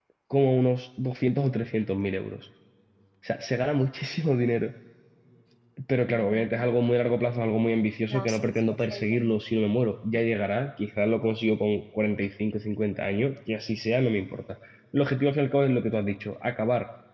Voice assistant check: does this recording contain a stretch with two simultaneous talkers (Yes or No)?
Yes